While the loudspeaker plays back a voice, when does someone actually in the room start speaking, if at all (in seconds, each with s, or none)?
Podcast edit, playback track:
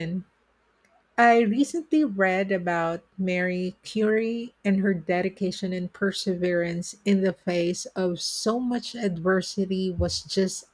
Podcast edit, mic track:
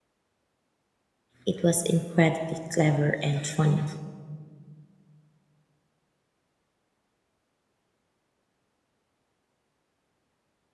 1.4 s